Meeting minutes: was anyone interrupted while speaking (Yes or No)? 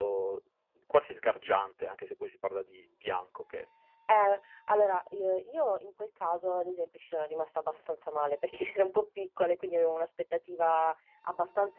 No